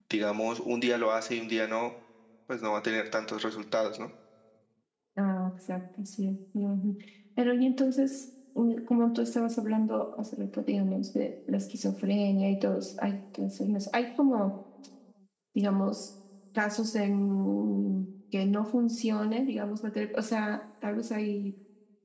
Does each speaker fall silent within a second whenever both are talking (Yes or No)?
Yes